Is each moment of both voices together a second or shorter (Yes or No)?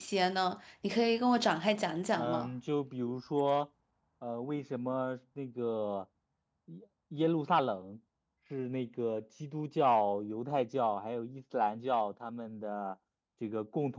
Yes